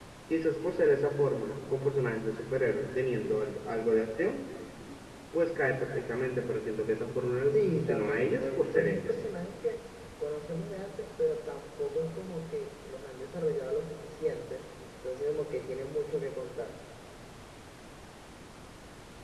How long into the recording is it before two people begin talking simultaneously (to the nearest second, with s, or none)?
8 s